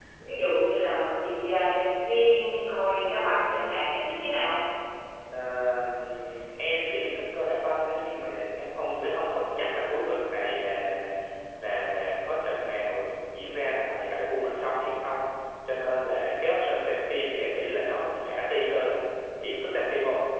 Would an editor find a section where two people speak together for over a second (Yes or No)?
No